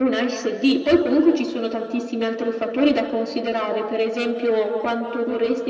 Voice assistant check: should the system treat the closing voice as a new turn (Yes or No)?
No